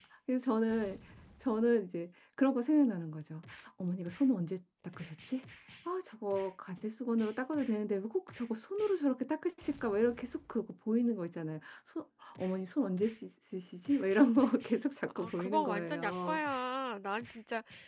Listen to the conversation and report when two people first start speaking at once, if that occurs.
15.1 s

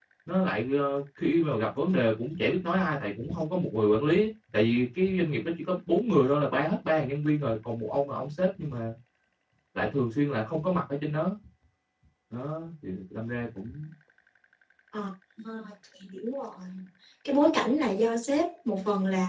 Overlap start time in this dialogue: none

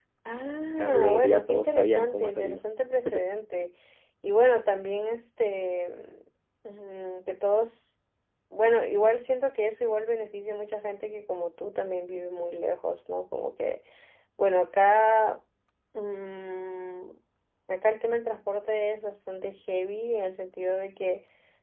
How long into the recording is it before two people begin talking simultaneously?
0.8 s

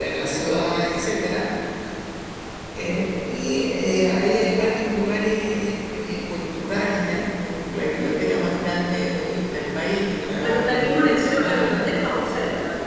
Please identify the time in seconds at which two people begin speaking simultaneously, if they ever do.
10.4 s

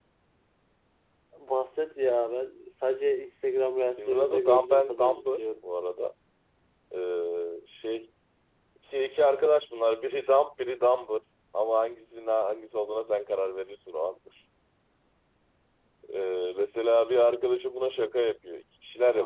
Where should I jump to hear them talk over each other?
4.0 s

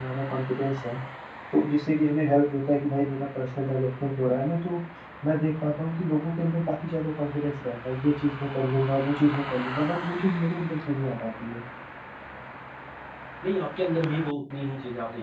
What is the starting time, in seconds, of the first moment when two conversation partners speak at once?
none

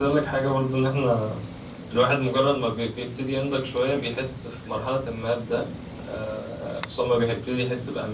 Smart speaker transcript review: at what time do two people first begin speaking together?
none

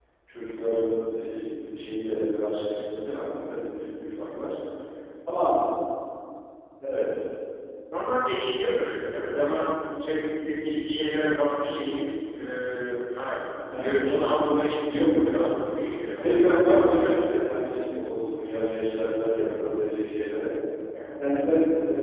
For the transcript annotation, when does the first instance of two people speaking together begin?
13.7 s

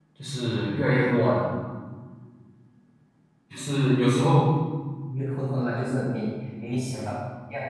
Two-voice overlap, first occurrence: none

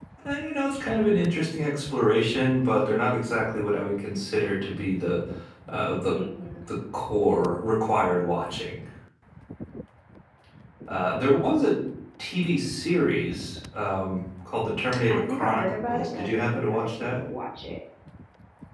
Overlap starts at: 15.1 s

